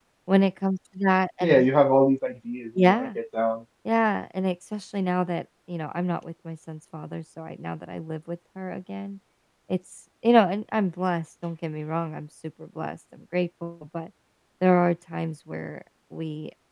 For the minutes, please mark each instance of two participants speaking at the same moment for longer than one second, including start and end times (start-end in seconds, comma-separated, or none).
none